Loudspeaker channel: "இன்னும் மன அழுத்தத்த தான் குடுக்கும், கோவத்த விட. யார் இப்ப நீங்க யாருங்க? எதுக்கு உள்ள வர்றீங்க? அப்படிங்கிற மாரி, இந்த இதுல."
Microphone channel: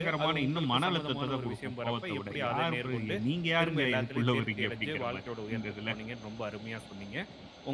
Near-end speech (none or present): present